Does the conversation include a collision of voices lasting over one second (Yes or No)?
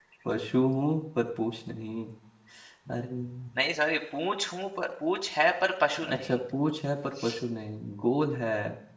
No